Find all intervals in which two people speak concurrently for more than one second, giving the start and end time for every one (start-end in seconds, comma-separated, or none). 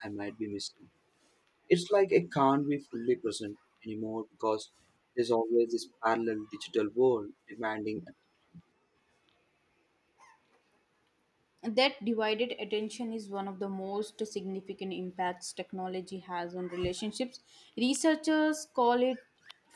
none